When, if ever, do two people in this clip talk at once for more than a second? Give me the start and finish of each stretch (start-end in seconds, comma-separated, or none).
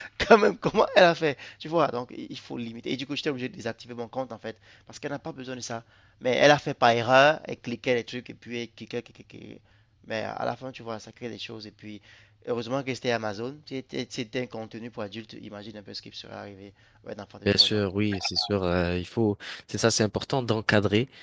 none